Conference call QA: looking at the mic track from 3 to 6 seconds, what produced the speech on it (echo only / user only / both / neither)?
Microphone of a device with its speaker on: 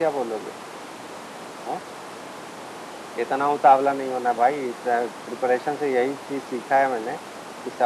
echo only